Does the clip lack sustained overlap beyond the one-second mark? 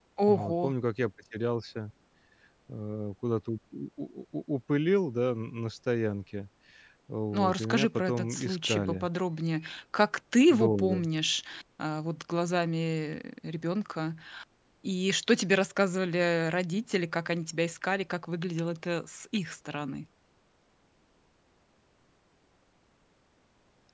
No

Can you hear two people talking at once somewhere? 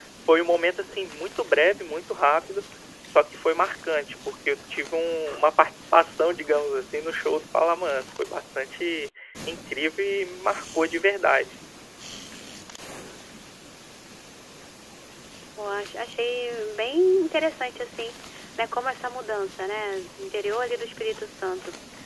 No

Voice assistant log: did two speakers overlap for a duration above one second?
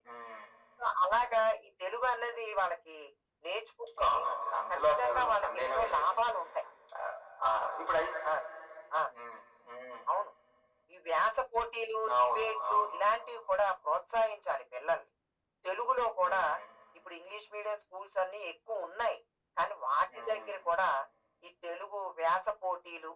Yes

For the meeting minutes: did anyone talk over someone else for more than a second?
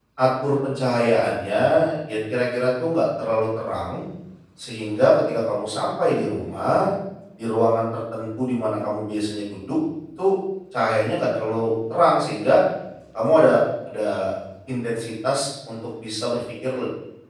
No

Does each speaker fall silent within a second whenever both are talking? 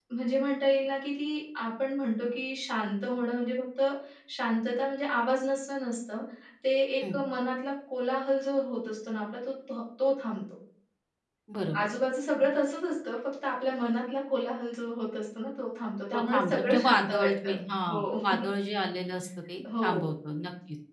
No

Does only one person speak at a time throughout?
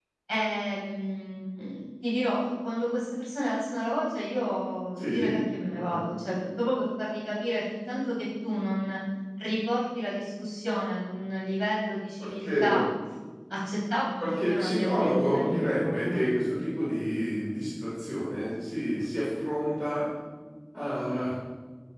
No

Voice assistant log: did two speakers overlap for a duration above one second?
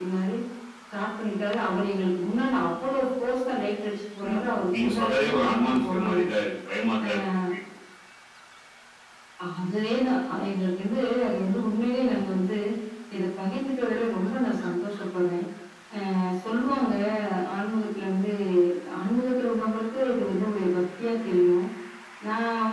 Yes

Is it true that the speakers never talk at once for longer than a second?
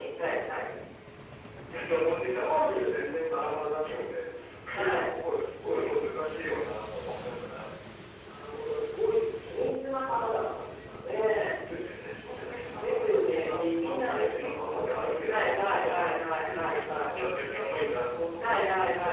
No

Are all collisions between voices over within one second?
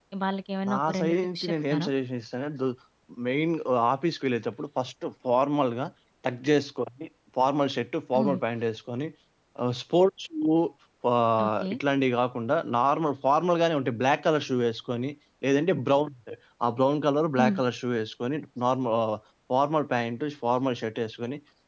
No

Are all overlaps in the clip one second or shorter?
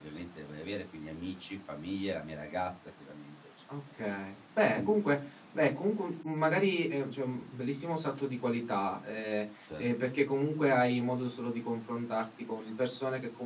Yes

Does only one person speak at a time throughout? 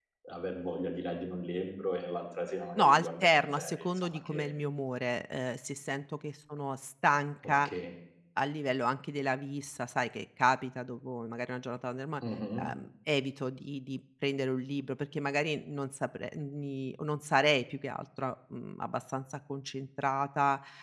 No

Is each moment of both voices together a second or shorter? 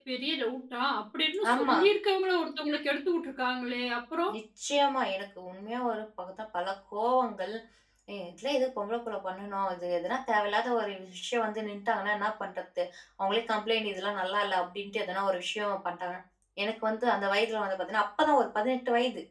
Yes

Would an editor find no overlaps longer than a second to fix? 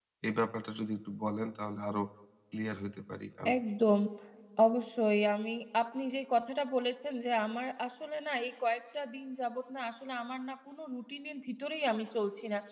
Yes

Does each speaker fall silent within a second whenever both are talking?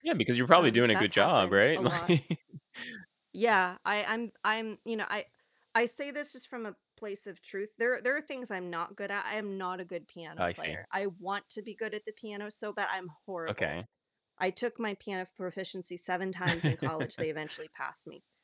No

